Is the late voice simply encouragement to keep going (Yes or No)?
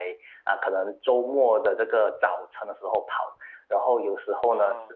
Yes